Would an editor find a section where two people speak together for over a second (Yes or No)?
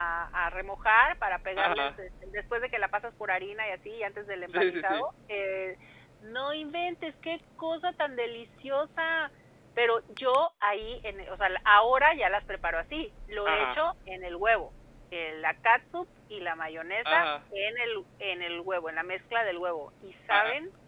No